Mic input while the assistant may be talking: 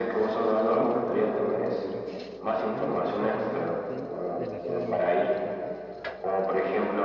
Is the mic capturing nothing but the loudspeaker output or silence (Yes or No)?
No